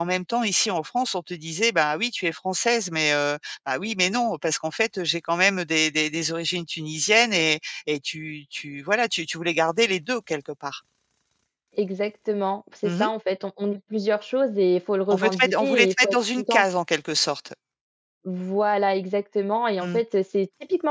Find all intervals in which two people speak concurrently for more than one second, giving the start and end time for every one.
15.1-16.6

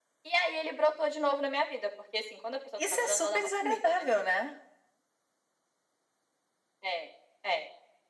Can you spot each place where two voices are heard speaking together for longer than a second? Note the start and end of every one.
2.8-4.1

